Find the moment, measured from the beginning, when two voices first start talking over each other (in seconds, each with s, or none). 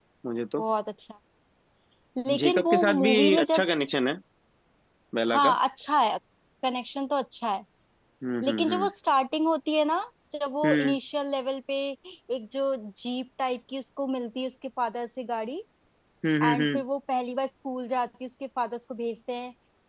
2.4 s